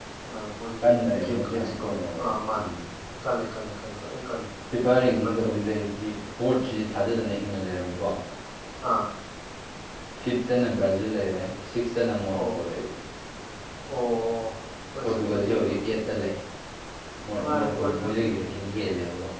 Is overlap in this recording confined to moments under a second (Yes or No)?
No